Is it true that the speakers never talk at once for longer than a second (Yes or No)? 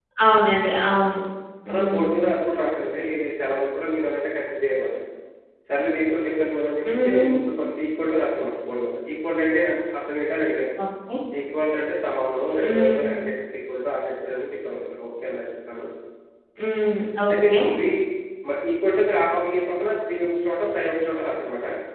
Yes